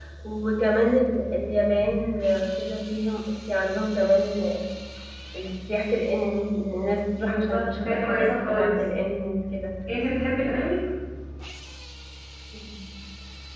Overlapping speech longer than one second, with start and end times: 7.2-8.7

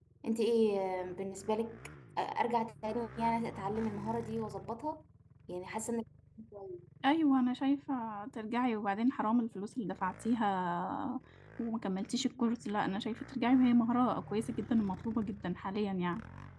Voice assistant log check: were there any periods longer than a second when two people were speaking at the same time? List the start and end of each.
none

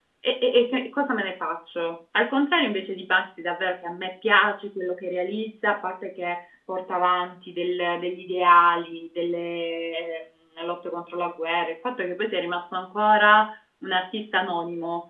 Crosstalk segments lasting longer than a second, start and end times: none

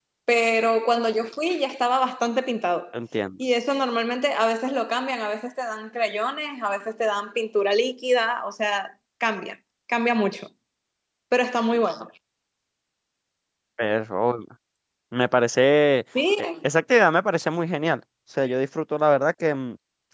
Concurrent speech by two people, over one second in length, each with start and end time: none

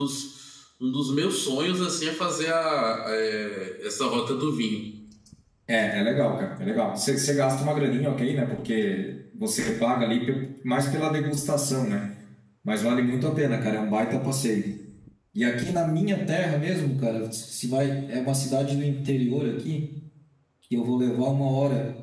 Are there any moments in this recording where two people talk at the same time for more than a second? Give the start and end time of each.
none

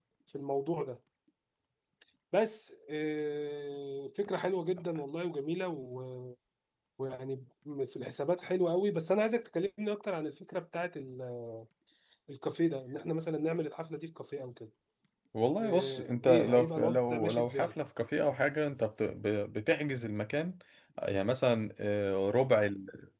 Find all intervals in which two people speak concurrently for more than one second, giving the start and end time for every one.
15.6-17.7

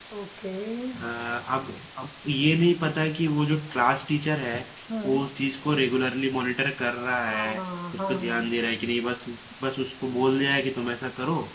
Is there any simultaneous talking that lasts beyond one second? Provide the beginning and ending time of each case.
none

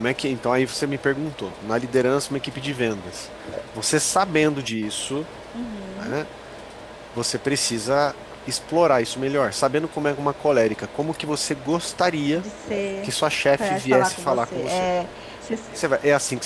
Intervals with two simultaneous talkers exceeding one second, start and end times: 13.6-14.9

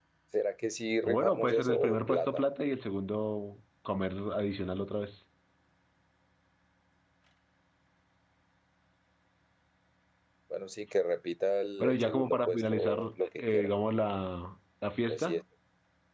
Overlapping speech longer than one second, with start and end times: 1.0-2.4, 11.8-13.0

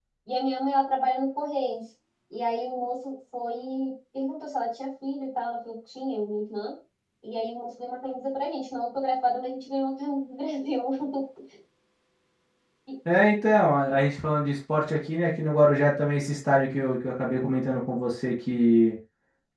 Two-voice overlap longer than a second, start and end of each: none

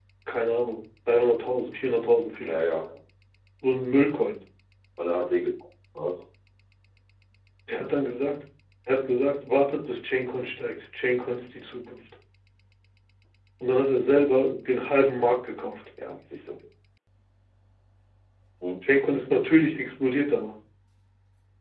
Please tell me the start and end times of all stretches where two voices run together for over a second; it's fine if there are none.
none

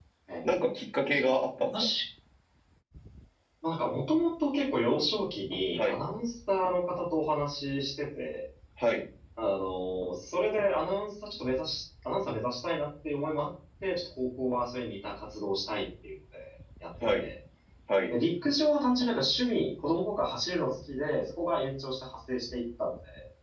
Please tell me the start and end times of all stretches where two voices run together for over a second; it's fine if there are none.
none

